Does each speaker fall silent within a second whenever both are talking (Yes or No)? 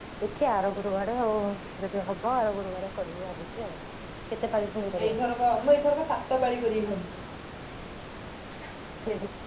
Yes